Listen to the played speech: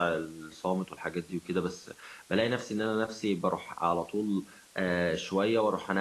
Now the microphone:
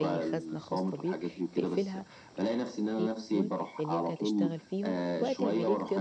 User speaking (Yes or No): Yes